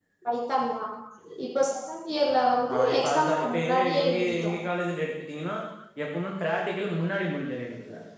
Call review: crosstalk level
present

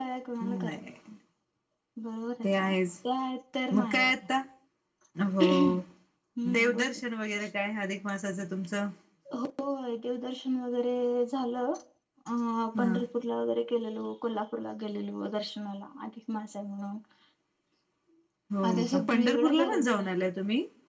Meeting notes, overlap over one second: present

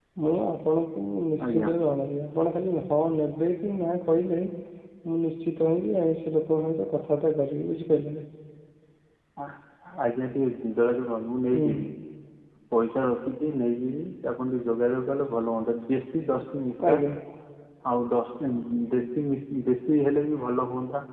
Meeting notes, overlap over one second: none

